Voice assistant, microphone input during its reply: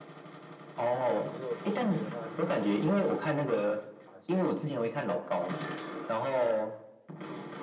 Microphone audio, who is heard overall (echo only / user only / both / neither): both